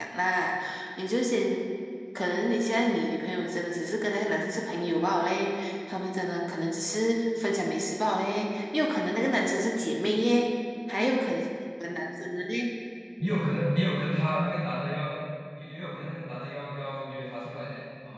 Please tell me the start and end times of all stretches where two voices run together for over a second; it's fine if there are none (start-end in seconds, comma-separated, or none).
none